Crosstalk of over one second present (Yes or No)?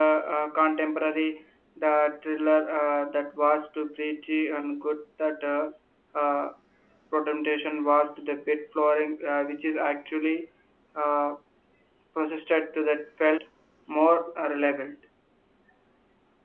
No